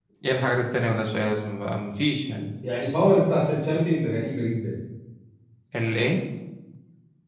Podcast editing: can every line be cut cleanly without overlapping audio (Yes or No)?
Yes